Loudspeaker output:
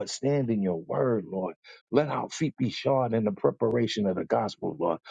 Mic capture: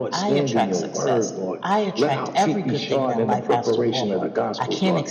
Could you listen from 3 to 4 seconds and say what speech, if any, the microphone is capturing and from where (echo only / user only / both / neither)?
both